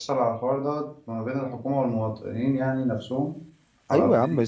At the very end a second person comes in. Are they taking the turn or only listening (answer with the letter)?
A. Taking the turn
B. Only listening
A